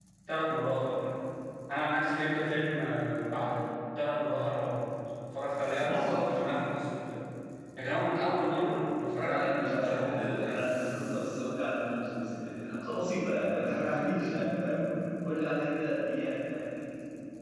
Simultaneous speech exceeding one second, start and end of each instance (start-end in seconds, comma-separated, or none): 9.2-10.5